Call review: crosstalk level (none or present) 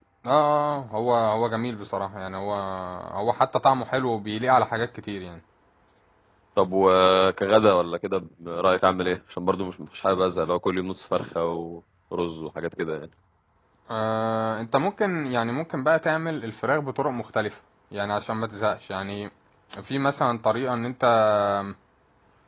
none